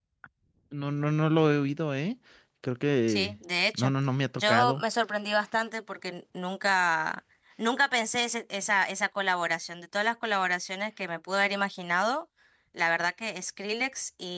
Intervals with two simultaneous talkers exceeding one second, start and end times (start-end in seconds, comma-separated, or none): none